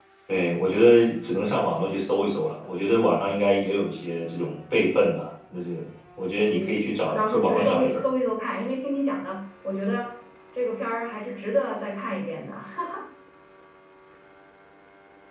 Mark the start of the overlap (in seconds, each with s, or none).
6.5 s